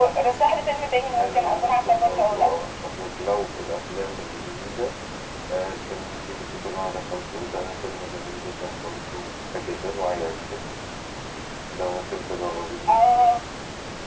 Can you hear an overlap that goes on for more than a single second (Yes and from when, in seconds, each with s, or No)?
Yes, from 1.2 s